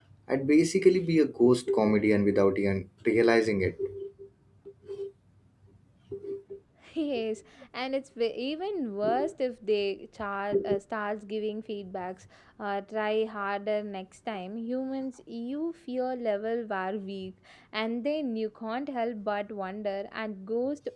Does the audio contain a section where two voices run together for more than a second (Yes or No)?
No